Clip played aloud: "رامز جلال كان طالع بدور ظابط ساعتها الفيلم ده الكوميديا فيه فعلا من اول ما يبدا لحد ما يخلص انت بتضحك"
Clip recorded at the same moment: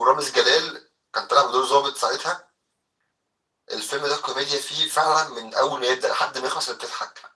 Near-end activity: none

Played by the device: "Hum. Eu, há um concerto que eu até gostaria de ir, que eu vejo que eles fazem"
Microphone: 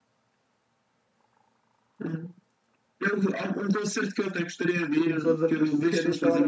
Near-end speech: present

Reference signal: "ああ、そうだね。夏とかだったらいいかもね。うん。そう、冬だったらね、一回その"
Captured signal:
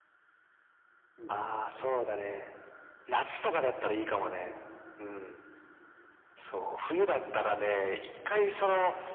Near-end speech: present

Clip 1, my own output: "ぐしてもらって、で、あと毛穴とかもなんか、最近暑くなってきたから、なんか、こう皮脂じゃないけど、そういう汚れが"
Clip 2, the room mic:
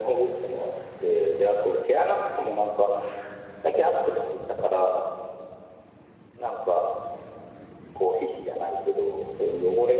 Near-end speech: none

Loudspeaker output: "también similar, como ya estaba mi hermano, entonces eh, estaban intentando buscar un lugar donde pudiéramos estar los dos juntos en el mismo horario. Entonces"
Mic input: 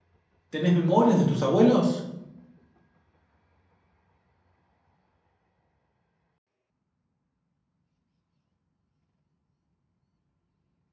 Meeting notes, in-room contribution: present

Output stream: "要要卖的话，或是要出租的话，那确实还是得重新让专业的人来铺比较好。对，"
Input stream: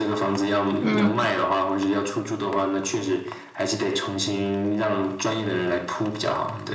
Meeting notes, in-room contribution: present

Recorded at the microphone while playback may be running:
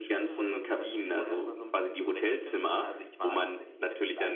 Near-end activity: present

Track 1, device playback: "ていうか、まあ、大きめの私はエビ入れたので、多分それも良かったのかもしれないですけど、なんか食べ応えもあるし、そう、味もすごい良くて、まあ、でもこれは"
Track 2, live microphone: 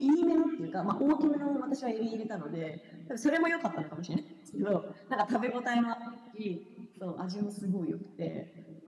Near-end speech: none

